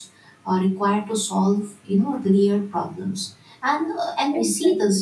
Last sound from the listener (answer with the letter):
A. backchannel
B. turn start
A